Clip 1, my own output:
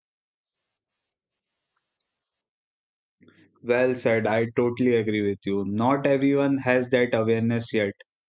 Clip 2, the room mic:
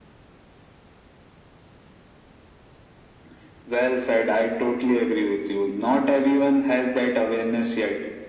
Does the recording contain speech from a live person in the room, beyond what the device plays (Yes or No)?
No